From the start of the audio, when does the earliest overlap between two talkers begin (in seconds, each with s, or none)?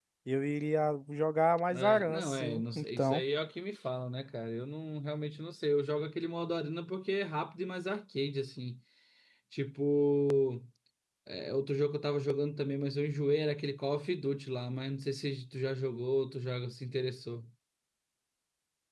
1.7 s